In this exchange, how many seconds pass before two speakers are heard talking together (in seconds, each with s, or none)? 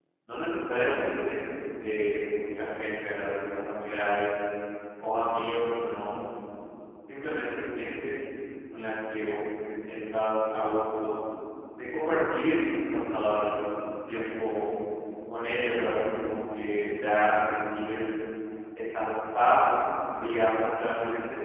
none